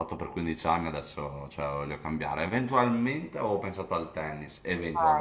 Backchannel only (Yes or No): No